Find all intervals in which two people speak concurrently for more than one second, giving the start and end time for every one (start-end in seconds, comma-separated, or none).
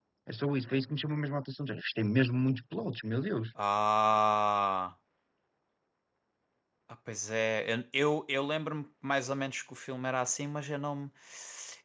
none